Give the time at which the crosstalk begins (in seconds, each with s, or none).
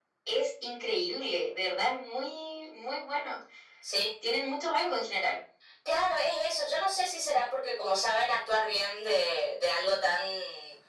none